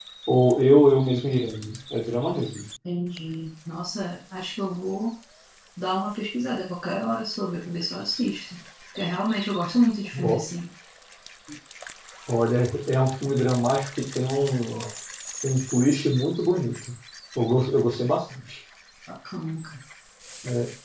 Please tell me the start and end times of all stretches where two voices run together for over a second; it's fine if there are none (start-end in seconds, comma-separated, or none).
none